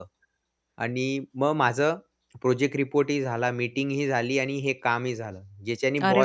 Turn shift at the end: Yes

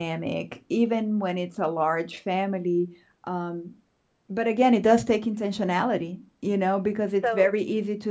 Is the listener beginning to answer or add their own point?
No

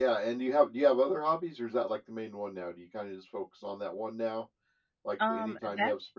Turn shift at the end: No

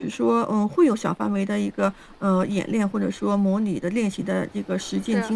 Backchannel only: Yes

